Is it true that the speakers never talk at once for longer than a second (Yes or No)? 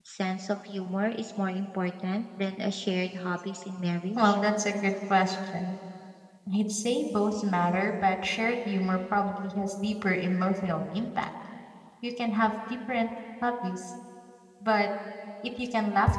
Yes